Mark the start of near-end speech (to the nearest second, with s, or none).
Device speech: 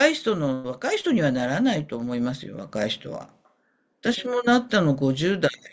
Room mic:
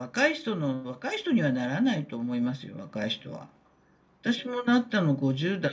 none